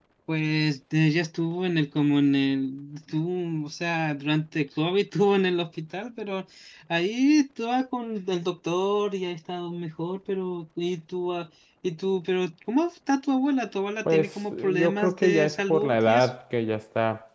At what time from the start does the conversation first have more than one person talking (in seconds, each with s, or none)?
14.1 s